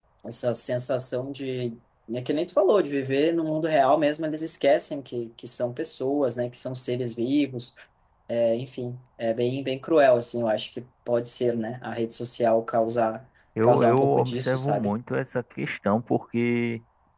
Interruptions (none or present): present